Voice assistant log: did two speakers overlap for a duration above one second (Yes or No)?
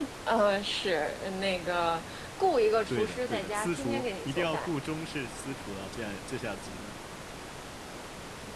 Yes